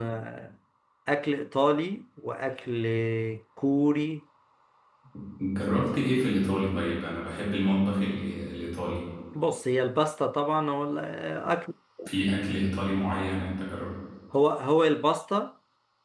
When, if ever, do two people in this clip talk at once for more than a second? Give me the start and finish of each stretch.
none

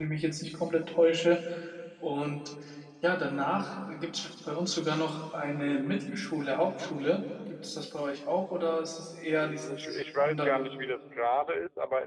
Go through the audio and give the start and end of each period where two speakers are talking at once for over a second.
9.4-10.7

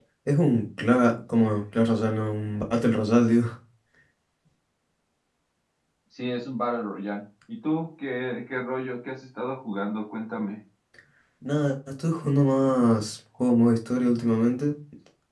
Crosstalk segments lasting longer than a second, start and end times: none

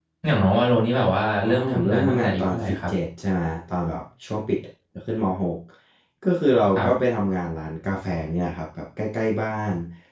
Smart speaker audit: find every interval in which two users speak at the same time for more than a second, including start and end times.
1.4-2.9

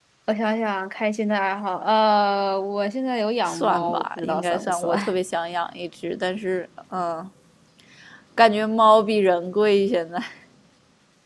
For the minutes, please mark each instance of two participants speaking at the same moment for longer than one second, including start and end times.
3.5-4.9

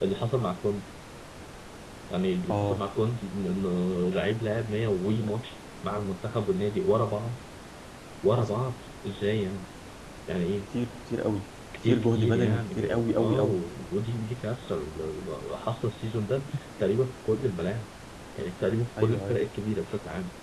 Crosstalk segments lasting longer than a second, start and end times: 11.9-13.6

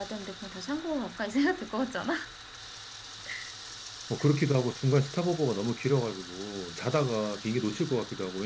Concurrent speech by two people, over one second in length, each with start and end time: none

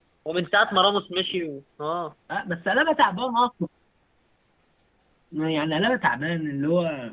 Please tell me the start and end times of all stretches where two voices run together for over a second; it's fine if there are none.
none

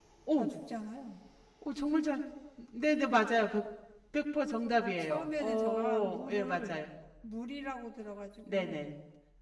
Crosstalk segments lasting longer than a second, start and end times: 4.8-6.8

